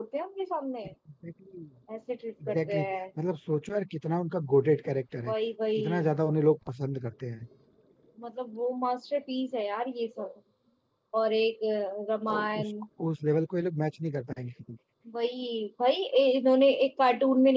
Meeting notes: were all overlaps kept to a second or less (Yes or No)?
Yes